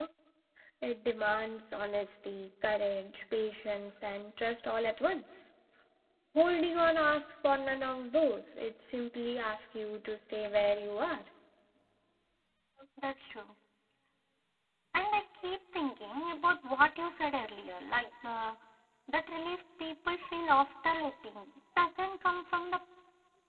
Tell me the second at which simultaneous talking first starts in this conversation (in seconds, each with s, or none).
none